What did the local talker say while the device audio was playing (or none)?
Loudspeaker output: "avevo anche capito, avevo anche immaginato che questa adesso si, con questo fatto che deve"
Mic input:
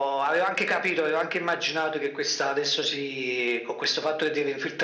none